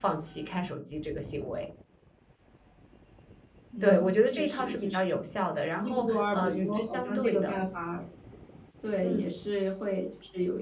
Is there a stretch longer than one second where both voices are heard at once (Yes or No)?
Yes